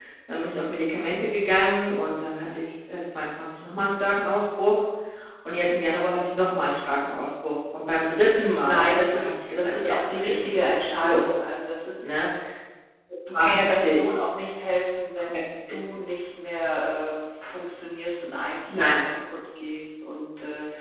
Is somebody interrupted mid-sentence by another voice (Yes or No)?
Yes